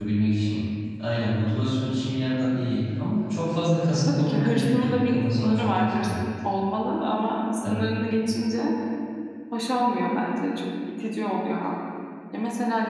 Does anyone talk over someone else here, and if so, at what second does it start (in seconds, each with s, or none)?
3.9 s